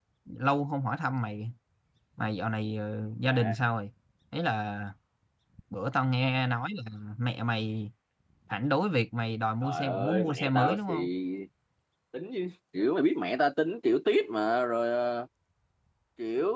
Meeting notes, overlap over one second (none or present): present